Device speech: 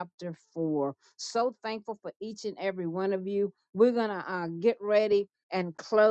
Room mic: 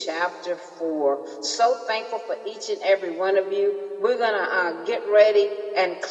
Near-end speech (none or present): none